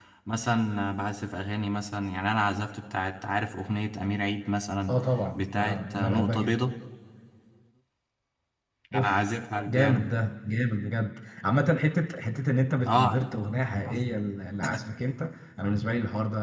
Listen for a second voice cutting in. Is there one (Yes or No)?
Yes